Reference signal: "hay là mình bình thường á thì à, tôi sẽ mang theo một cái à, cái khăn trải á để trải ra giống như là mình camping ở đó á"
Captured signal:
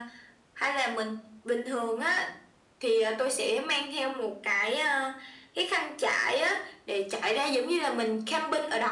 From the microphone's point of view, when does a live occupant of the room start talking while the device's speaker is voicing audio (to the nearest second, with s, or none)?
none